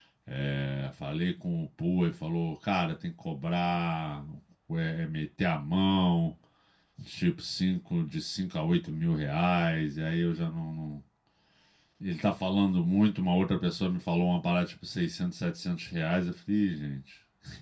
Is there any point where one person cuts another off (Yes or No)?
No